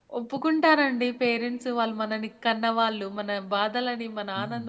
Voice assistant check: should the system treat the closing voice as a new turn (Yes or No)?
No